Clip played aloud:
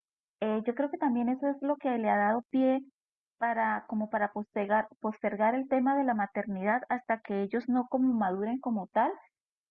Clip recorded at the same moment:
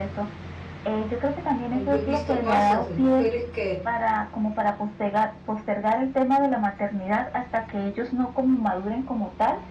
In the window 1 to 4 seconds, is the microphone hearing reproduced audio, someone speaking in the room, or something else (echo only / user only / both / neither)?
both